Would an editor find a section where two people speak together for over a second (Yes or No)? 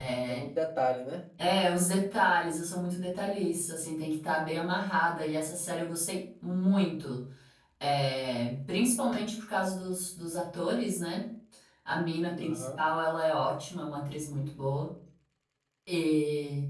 No